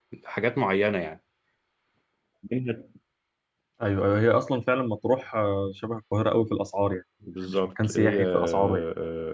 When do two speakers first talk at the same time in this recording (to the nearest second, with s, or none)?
7 s